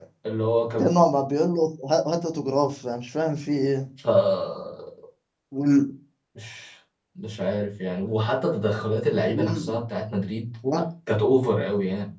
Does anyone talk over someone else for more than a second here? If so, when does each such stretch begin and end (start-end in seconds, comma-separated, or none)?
none